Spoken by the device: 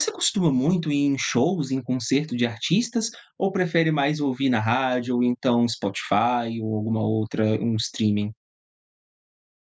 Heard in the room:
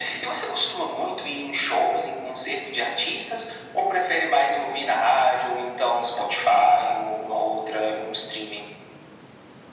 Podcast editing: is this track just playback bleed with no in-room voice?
Yes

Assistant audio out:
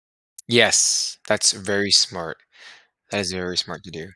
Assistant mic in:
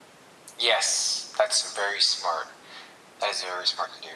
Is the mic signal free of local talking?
Yes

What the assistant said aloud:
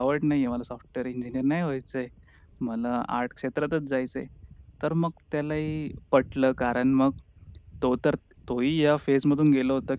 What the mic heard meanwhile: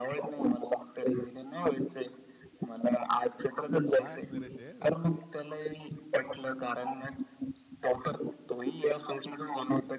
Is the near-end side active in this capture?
Yes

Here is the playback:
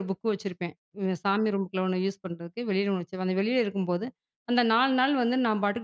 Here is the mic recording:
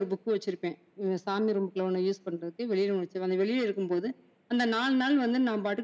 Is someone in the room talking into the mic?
No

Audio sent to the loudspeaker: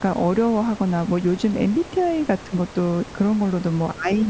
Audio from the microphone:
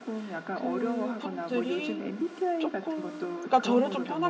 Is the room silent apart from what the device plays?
No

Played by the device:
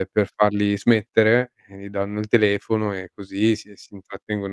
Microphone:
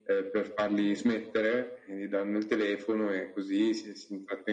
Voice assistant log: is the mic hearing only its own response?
No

